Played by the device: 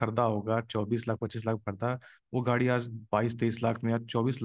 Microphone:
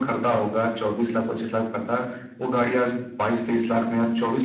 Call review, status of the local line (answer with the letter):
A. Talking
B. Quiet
B